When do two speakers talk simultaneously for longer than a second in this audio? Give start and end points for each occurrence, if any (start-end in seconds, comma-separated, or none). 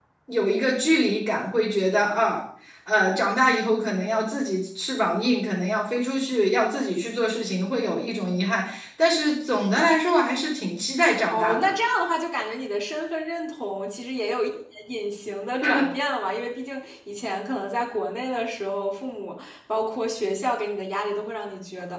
none